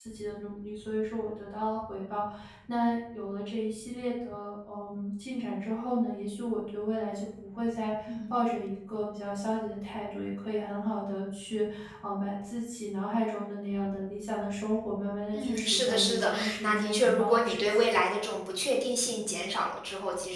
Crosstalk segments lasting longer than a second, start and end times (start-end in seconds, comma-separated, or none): 15.3-17.9